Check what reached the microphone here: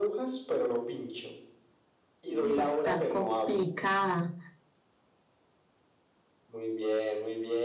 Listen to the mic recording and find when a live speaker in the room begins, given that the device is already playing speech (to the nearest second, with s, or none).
2 s